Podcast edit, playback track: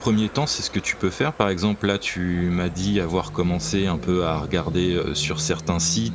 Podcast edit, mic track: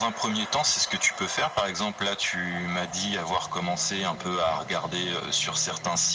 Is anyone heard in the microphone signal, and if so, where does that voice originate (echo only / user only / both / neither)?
echo only